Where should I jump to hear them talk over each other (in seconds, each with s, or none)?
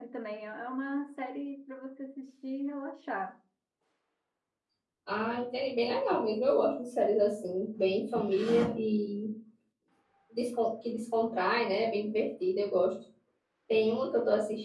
none